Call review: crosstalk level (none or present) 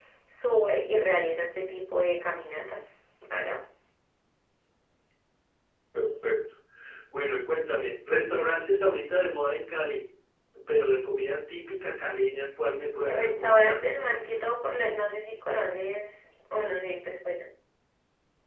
present